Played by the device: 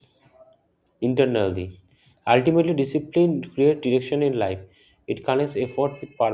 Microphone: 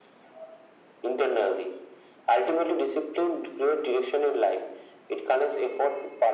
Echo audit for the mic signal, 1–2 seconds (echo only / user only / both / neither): echo only